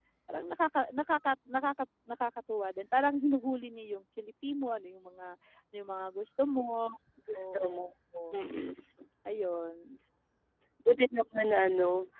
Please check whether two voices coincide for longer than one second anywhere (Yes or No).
No